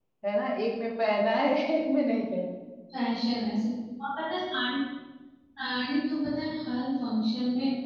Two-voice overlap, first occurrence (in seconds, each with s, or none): none